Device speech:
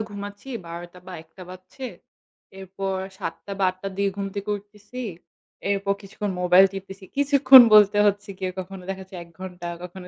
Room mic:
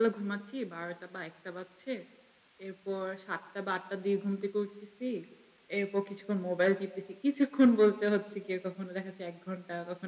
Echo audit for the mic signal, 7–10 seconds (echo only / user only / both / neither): echo only